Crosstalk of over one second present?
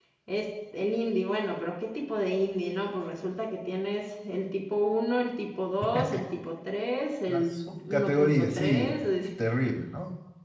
Yes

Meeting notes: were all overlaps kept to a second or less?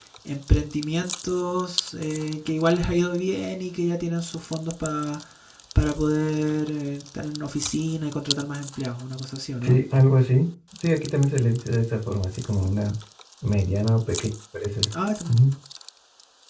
Yes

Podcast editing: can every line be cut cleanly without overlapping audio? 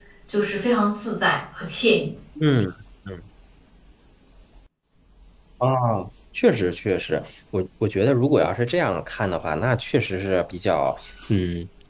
Yes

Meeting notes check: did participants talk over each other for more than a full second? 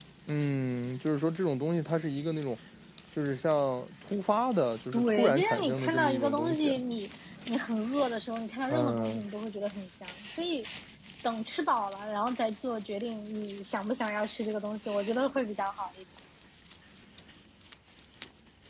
Yes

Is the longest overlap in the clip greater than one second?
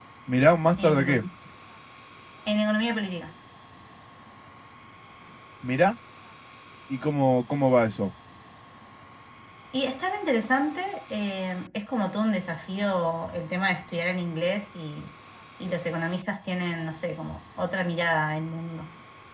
No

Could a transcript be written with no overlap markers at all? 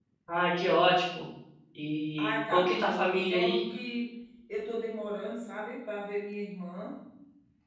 No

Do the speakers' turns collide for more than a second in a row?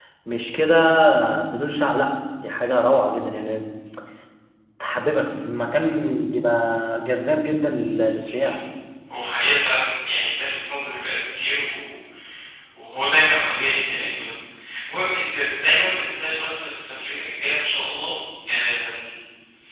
No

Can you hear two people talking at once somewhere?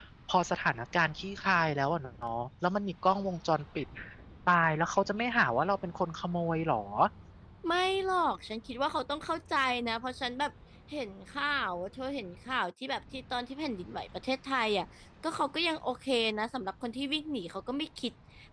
No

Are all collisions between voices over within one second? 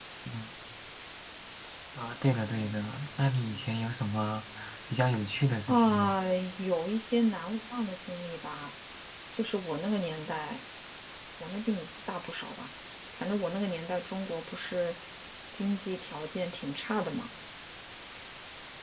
Yes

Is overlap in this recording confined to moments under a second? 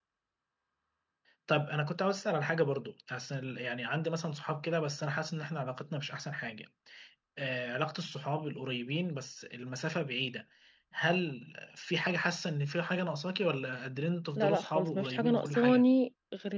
No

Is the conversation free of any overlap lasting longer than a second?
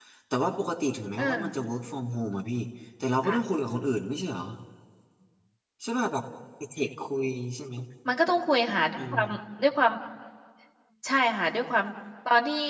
Yes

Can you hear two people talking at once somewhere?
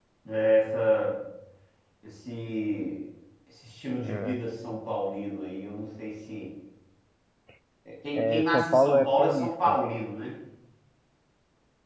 Yes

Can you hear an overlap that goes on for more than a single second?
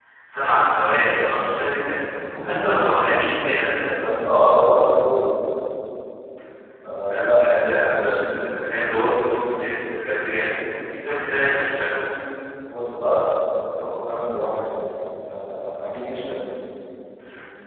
Yes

